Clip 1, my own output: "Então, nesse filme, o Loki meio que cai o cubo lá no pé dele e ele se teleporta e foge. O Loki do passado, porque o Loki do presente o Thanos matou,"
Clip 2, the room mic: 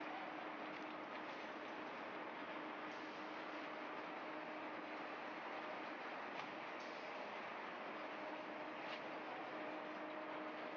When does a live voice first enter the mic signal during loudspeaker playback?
none

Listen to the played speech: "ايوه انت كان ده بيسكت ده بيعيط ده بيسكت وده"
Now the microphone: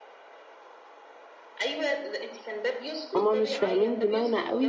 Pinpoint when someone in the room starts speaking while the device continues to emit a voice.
3.2 s

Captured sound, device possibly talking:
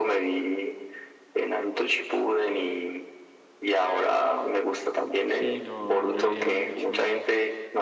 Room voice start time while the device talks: 5.3 s

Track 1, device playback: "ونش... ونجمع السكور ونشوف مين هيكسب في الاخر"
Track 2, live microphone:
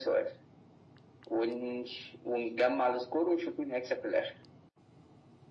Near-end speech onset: none

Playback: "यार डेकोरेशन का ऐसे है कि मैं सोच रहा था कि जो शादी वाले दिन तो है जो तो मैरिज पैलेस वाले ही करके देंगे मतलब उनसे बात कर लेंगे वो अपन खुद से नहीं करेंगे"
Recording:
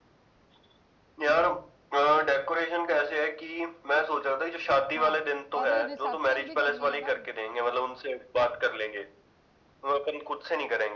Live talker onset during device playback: 5.0 s

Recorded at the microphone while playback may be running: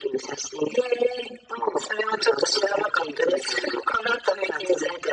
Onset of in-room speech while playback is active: none

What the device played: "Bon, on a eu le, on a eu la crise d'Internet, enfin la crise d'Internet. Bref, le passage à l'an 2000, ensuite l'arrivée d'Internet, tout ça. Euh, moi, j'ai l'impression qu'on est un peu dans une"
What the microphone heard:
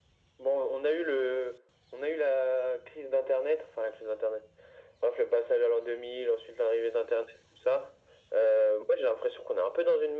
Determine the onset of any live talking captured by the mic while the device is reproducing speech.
none

